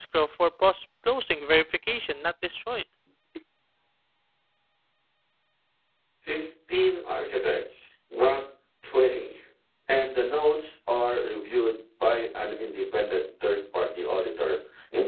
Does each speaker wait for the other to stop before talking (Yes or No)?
Yes